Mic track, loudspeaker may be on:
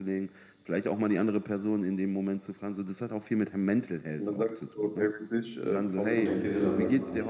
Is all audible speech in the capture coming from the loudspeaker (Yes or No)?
No